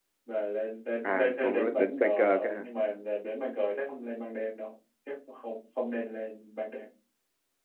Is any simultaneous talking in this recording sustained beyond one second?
Yes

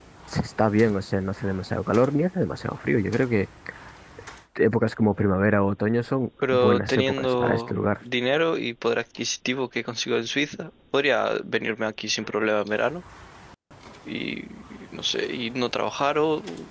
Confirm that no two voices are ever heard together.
No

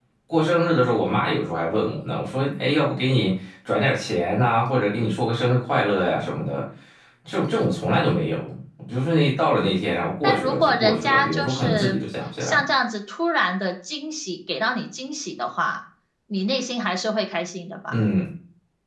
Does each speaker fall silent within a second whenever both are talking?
No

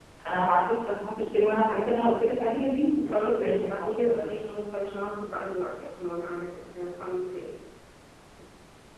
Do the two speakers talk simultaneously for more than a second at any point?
Yes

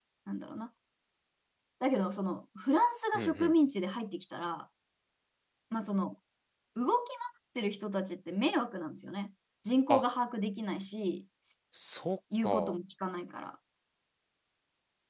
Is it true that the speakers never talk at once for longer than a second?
Yes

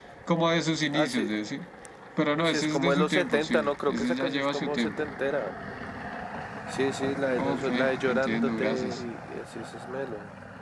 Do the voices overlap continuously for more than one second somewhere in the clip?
Yes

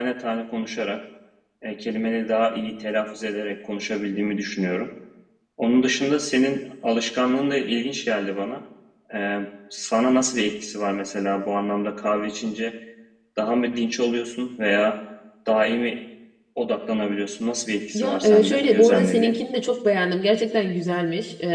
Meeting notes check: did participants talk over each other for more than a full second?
Yes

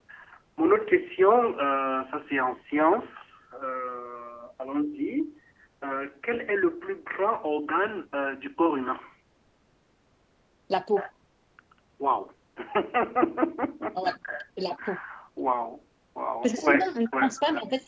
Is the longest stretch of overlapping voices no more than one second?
No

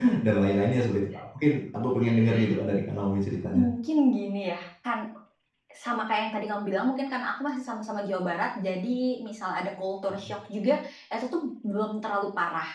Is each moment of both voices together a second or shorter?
Yes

